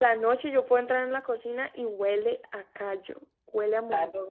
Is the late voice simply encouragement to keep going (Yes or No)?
No